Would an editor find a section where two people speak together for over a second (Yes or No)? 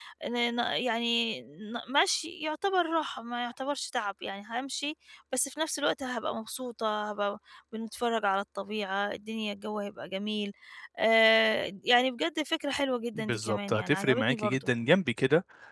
Yes